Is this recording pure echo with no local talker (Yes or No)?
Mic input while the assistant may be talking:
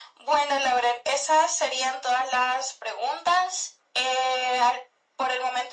Yes